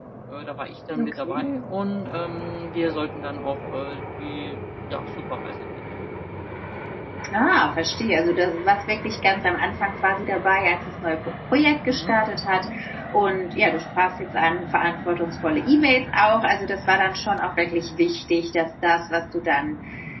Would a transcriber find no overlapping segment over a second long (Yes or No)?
Yes